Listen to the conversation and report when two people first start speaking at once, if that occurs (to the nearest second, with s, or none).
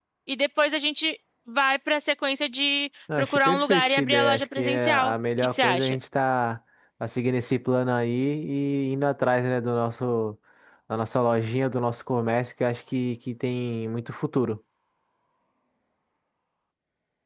3 s